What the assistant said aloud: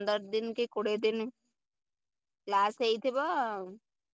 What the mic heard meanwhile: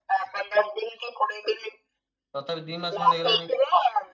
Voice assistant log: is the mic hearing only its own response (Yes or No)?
No